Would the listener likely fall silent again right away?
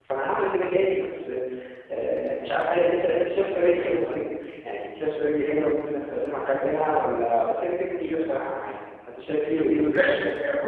No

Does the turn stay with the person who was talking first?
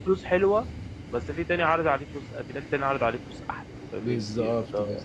No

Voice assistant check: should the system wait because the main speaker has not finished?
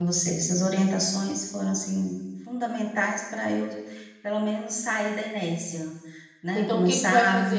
No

